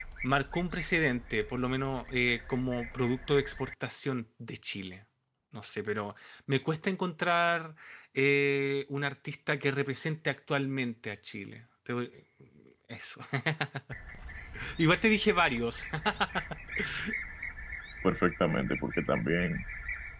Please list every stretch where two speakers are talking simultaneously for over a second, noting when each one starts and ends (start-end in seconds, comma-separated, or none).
none